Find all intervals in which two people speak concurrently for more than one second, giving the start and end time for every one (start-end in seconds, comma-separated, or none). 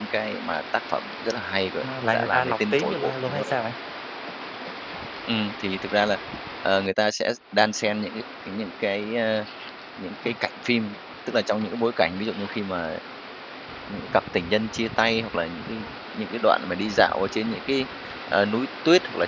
2.1-3.4